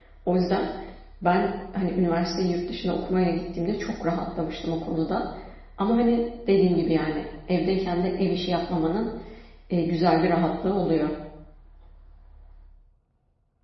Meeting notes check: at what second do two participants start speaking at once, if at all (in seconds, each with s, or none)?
none